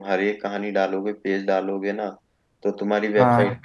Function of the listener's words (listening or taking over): listening